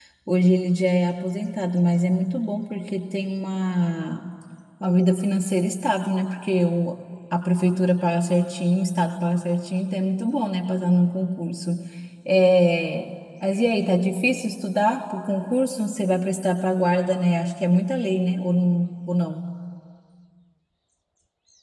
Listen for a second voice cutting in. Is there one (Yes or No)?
No